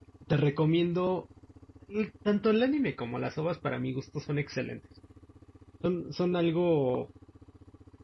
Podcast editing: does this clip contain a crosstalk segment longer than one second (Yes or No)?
No